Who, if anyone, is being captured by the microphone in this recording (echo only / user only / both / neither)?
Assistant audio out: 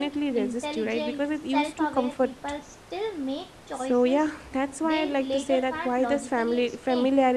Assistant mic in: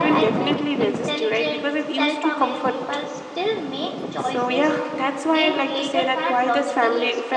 echo only